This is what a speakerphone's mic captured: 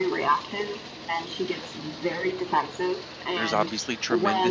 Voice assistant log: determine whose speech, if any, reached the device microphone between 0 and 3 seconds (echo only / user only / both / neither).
echo only